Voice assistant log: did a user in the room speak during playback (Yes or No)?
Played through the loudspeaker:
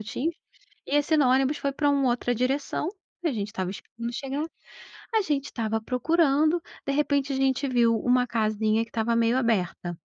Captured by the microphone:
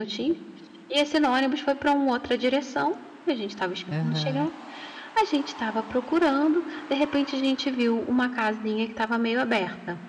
Yes